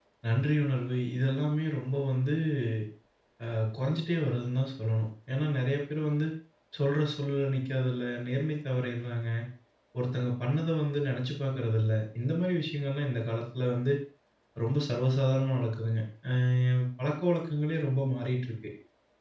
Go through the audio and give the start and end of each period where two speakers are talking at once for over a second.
none

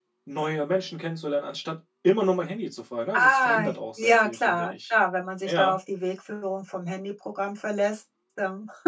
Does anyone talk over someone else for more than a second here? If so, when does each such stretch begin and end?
3.1-4.9

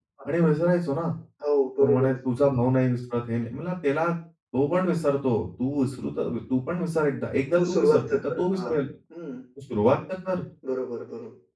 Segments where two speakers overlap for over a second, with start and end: 7.5-8.8

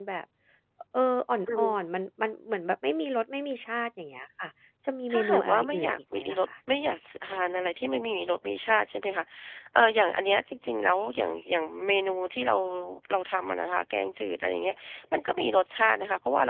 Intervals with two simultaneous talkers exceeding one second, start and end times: 5.1-6.4

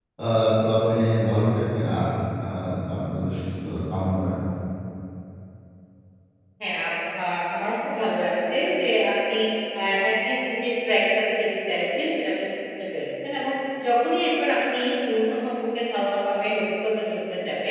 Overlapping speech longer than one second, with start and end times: none

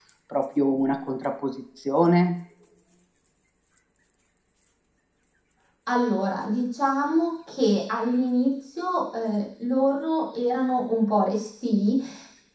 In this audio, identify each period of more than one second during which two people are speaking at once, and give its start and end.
none

